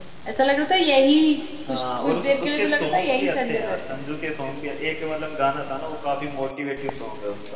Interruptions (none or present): present